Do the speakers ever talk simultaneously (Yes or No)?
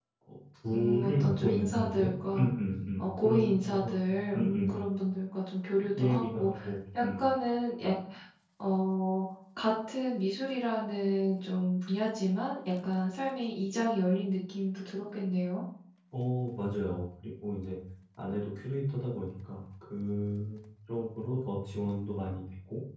Yes